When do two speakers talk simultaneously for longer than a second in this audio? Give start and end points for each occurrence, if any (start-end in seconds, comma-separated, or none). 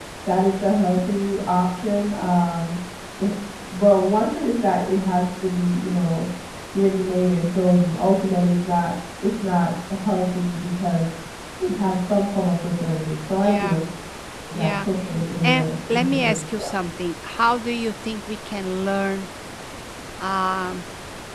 15.4-16.6